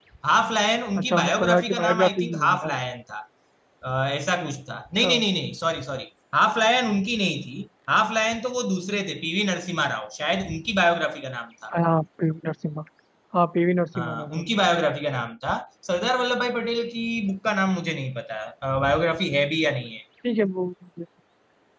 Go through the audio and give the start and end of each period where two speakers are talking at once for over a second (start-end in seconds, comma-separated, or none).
1.0-2.7